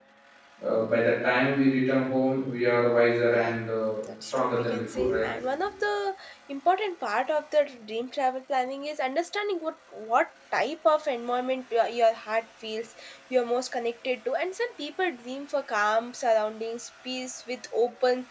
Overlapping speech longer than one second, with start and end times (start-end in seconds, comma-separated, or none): 4.0-5.3